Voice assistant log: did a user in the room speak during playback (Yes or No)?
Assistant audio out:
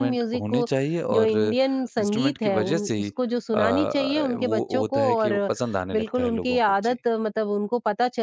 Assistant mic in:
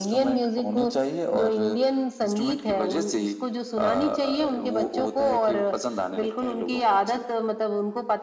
No